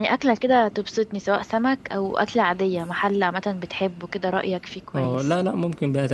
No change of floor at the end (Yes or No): No